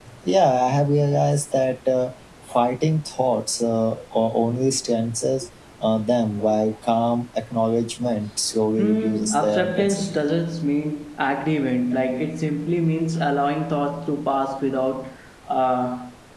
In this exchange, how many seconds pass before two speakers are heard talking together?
8.8 s

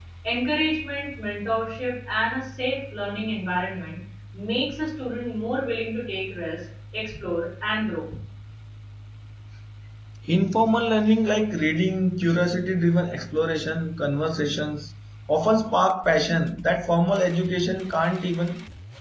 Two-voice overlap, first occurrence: none

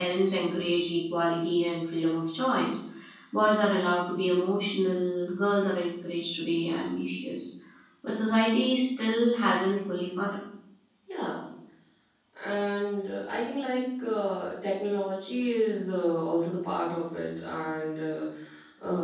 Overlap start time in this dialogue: none

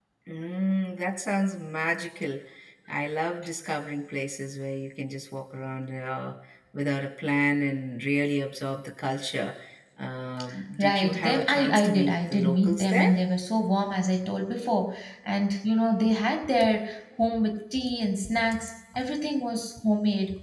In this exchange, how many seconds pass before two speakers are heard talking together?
10.8 s

